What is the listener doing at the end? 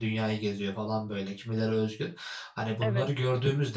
listening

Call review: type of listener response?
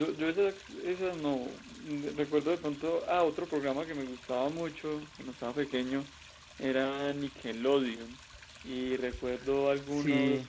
listening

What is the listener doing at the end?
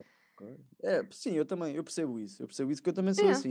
listening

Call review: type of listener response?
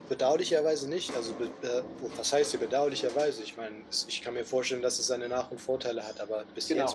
taking over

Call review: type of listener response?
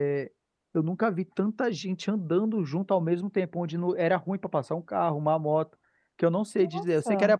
listening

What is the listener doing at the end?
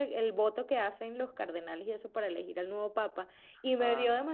listening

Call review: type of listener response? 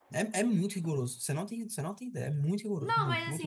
taking over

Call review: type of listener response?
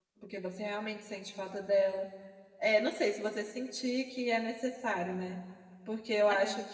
listening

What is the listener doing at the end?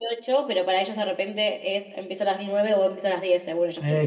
taking over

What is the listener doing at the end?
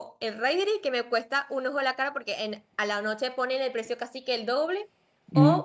listening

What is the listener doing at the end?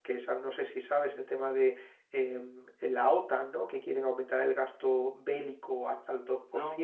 listening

